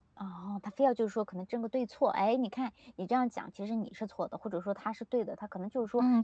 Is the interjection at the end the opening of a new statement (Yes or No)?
Yes